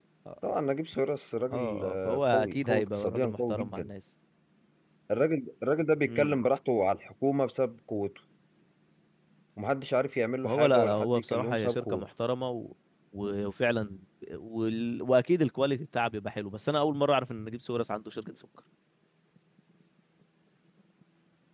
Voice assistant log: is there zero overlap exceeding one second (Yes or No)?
No